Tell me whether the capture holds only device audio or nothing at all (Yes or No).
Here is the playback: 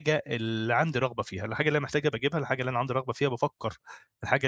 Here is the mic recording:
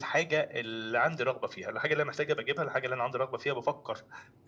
Yes